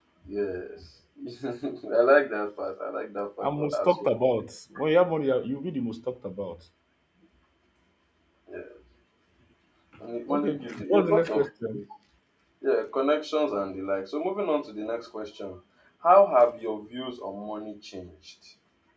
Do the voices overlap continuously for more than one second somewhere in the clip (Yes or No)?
Yes